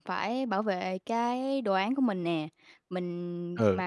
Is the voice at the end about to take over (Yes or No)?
No